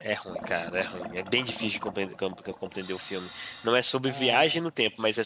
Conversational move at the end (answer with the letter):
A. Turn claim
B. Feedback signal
B